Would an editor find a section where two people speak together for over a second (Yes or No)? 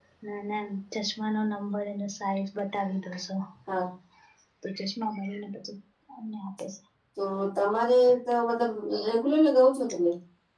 No